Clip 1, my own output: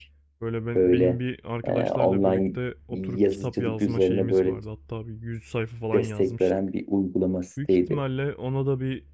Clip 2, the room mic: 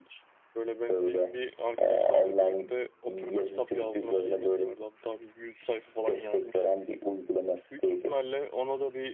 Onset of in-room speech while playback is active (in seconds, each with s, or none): none